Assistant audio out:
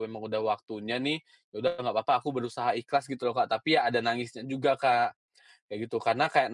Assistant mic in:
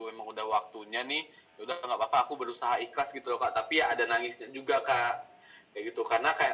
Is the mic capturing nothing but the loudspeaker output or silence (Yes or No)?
Yes